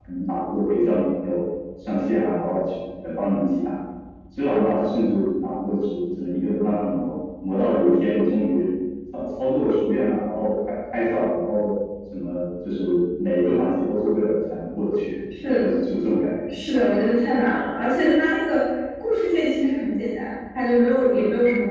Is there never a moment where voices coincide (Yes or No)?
Yes